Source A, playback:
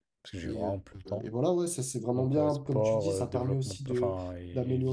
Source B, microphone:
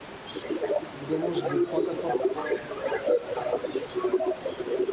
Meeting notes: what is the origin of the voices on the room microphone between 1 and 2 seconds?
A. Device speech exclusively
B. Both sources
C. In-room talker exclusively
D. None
B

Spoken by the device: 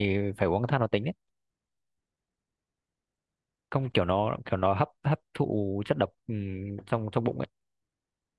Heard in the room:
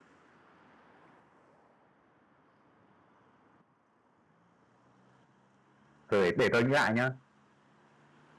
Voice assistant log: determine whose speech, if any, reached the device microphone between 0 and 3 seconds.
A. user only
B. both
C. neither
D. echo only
C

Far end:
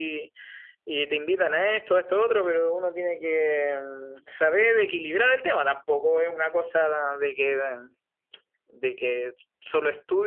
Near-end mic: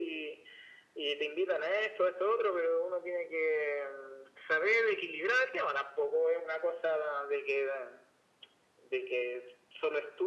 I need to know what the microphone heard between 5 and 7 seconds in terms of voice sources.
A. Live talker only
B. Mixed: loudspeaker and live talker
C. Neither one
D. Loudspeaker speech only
D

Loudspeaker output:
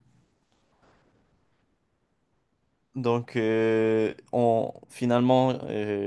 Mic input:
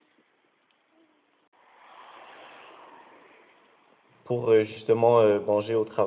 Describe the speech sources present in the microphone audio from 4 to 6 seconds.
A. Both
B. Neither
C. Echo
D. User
D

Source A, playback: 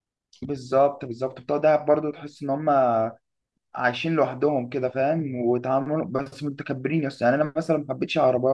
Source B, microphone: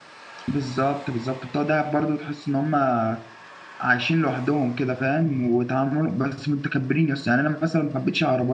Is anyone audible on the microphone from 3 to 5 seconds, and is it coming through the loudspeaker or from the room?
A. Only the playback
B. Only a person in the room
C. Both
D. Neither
A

